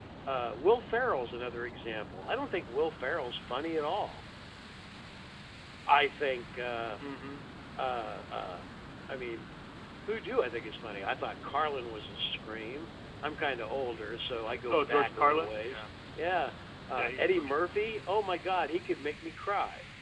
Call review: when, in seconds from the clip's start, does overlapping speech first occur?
14.4 s

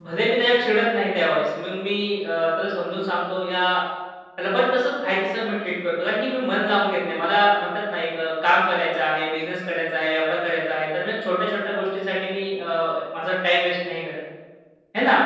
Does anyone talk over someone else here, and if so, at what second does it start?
none

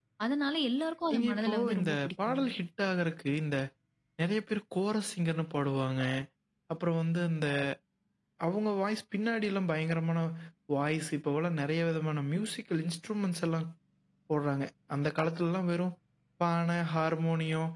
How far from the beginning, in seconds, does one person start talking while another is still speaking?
1.1 s

